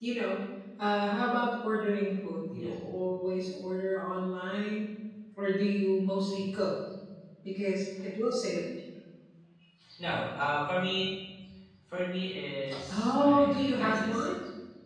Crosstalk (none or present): present